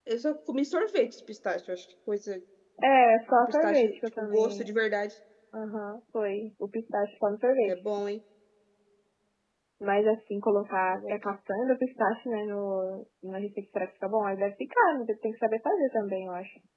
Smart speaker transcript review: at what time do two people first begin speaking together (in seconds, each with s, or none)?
3.4 s